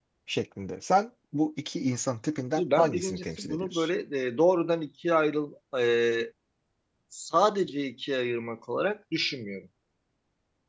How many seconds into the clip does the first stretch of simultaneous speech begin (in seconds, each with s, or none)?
2.6 s